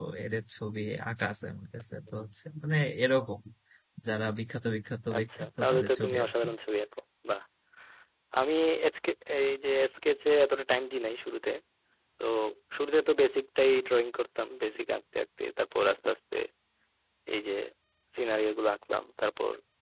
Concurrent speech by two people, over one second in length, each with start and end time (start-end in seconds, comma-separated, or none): 5.2-6.5